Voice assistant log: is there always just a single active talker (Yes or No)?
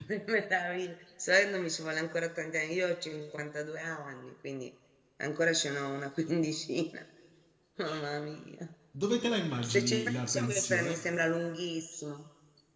No